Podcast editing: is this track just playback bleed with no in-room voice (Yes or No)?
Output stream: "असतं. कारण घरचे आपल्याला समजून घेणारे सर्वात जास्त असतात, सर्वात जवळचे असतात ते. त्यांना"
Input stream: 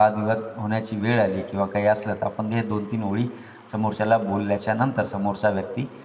No